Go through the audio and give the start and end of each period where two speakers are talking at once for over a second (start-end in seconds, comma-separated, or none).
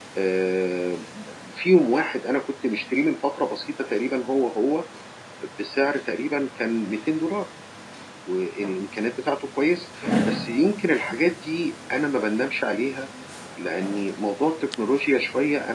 none